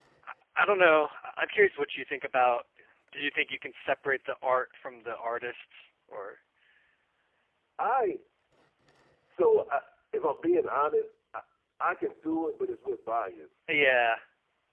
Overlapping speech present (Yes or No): No